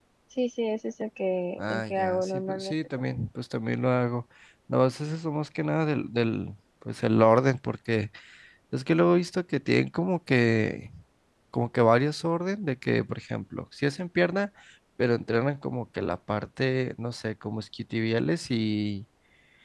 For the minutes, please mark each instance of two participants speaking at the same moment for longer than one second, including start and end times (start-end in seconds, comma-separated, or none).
1.6-3.2